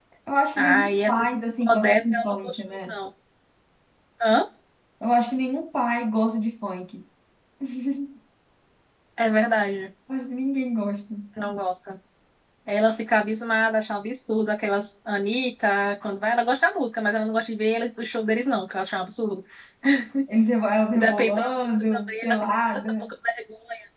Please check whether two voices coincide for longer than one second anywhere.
Yes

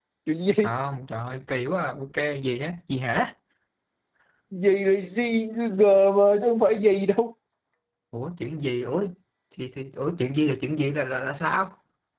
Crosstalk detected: No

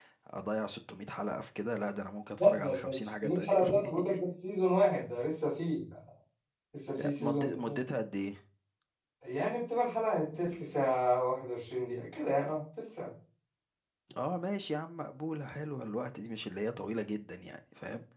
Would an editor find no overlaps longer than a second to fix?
No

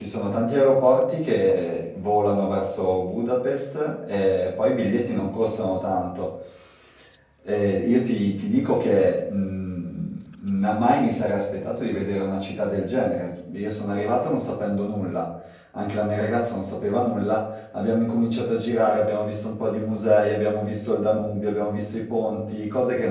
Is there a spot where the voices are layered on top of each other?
No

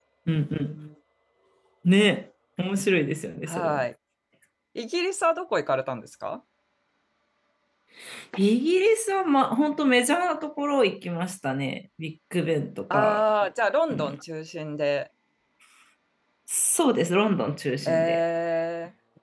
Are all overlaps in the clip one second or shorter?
Yes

